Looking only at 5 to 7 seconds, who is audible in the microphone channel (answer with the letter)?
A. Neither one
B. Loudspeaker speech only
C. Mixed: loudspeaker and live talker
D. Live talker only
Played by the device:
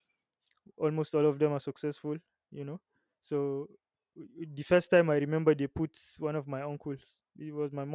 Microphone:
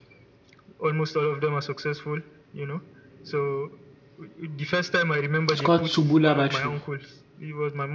C